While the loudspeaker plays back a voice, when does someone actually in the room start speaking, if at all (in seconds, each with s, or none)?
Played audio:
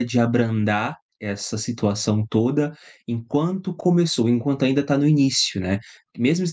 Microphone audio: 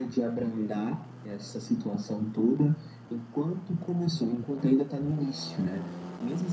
none